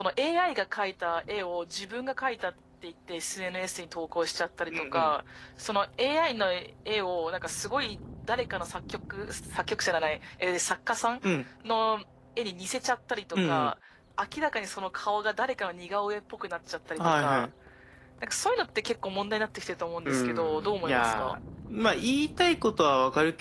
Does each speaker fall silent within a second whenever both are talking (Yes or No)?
No